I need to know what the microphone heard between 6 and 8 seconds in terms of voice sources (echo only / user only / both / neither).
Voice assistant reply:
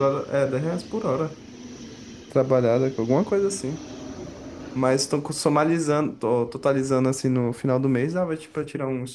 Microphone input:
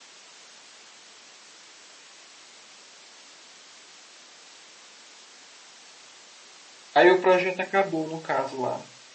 user only